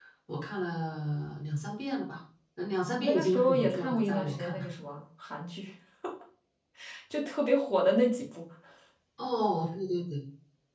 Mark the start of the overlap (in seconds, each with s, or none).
3.0 s